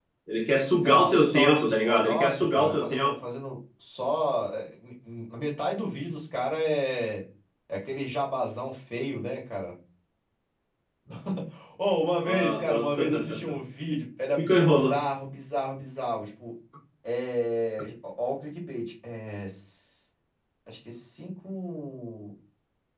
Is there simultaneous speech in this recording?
Yes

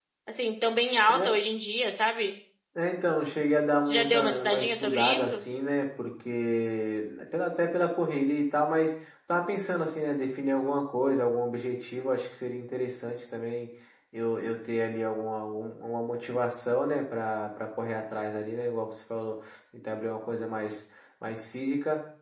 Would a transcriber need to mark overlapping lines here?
Yes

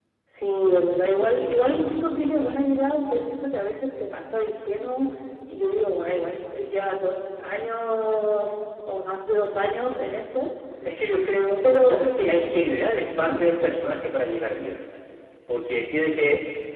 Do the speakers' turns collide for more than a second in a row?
No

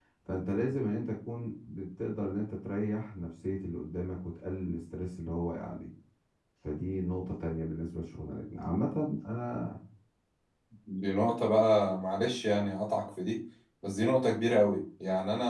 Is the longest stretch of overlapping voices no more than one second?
Yes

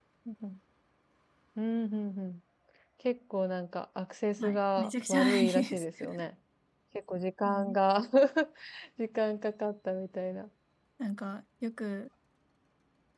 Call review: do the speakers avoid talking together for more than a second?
No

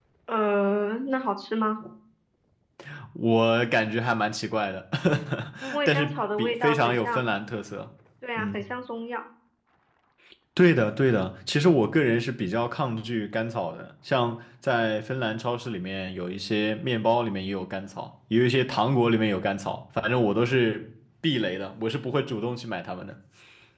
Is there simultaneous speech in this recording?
Yes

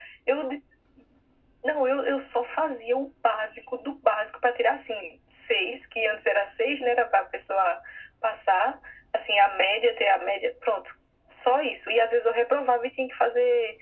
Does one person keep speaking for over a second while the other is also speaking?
No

